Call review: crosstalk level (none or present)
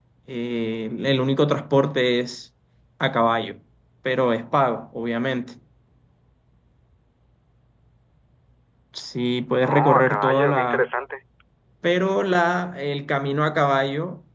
present